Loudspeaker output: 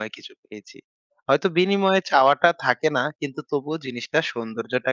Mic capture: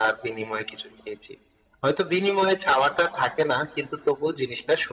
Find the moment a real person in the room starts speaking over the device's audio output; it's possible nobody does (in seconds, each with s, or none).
none